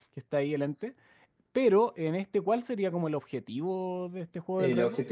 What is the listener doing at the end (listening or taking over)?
taking over